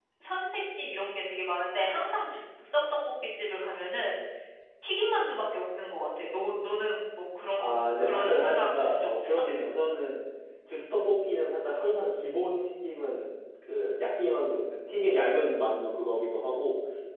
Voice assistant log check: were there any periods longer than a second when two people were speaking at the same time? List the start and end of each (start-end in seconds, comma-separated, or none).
7.6-9.4